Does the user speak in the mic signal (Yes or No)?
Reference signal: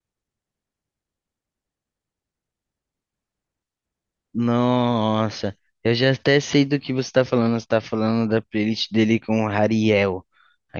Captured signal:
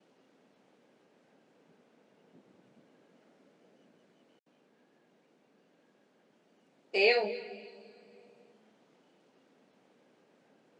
Yes